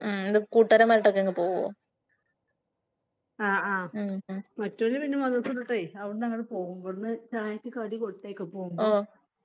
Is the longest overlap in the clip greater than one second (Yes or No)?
No